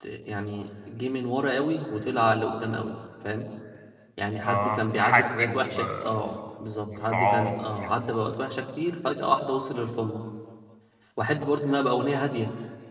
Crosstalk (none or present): present